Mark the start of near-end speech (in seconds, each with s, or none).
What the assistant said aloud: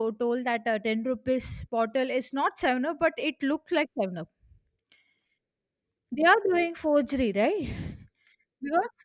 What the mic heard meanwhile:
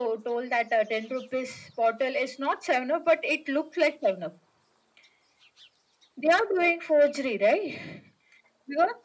none